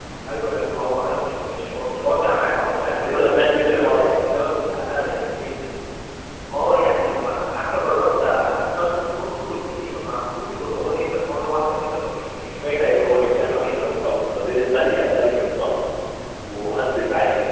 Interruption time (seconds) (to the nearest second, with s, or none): 3 s